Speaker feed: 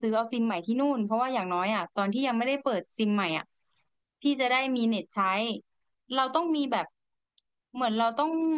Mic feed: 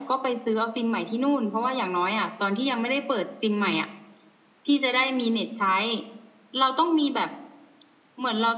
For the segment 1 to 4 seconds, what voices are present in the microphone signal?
echo only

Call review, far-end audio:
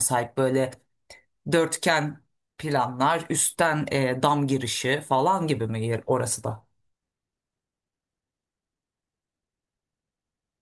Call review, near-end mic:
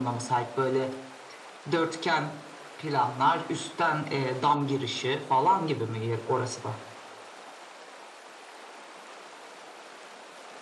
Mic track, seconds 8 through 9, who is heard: neither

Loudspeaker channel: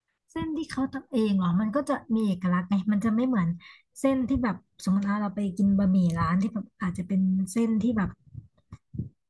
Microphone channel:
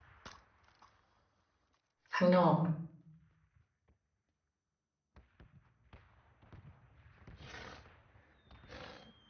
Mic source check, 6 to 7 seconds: neither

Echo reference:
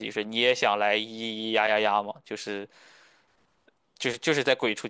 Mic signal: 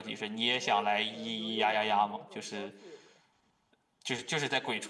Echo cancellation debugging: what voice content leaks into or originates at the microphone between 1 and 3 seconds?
both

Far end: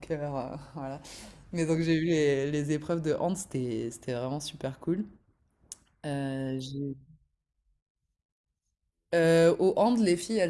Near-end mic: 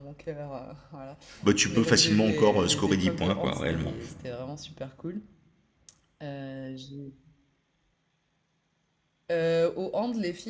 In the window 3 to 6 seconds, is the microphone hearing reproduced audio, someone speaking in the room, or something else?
both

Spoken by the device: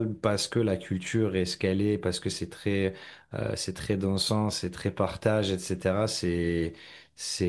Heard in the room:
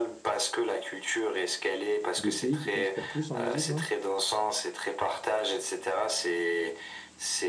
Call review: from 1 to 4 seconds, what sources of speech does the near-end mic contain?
both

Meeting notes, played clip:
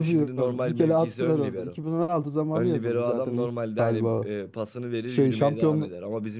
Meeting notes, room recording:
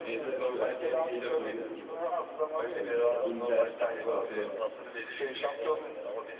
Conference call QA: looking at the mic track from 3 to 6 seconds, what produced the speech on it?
both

